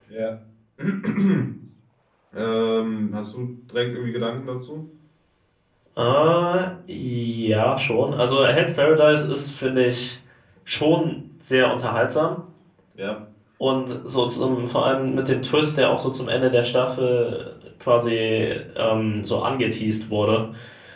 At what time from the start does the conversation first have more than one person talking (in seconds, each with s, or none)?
none